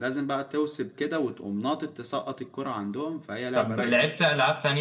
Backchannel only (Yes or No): No